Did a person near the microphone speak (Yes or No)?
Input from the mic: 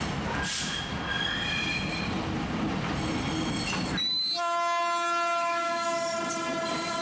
No